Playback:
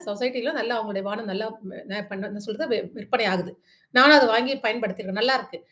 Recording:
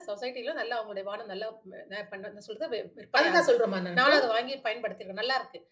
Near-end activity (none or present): present